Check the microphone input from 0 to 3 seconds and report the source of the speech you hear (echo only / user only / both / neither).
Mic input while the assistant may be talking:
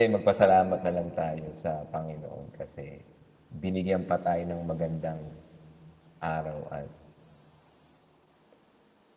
user only